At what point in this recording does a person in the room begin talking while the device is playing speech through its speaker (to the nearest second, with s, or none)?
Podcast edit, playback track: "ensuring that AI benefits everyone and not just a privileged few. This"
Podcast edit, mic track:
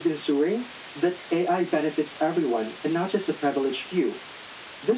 none